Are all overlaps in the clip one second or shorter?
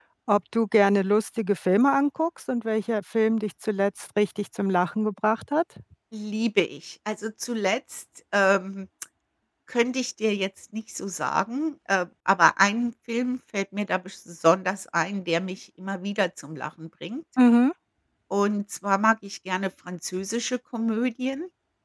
Yes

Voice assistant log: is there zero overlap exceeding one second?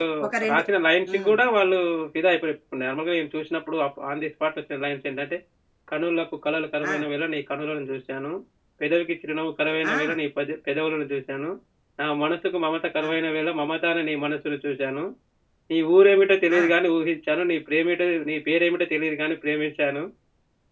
Yes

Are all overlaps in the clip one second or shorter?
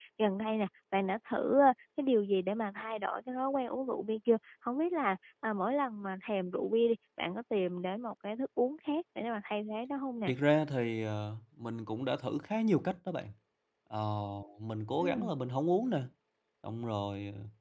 Yes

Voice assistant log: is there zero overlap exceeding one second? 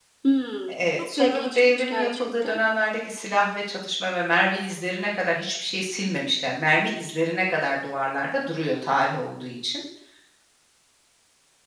No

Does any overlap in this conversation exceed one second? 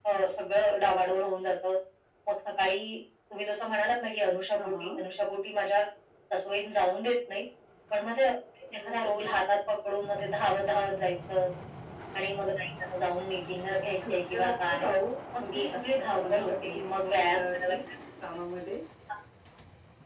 Yes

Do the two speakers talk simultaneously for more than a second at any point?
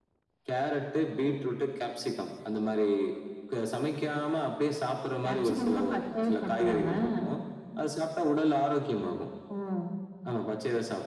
Yes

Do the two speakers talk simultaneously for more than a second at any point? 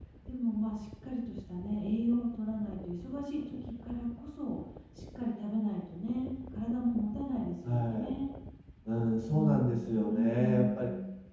Yes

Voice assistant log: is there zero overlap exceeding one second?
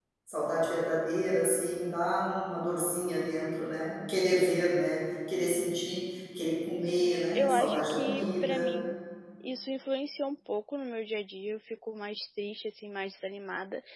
No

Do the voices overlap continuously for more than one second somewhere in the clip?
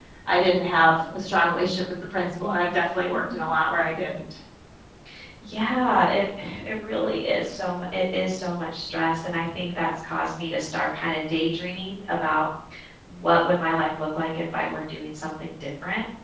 No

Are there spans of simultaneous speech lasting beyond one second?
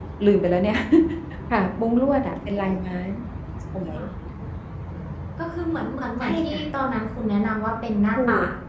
No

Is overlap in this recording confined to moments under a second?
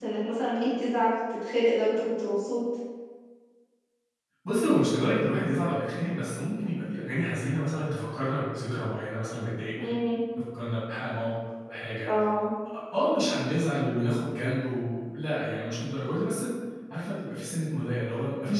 Yes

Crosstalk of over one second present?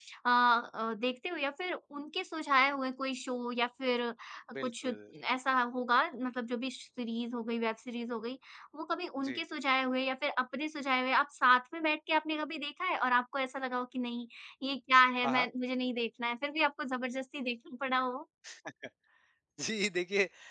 No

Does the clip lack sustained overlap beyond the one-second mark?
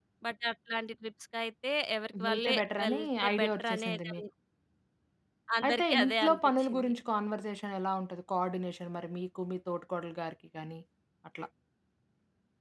No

